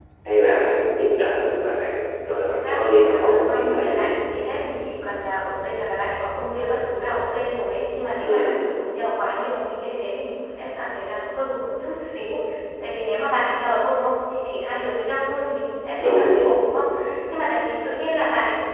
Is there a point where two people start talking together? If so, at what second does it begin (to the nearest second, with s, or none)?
3 s